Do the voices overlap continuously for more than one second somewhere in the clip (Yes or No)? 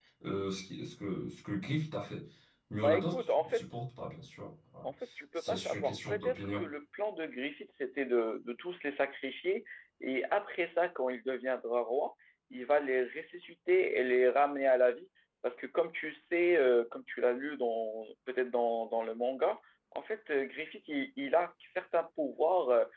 Yes